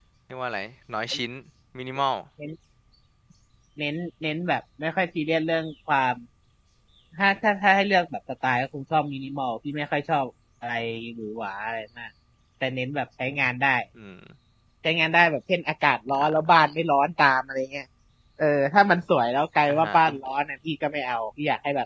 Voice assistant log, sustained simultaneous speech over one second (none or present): none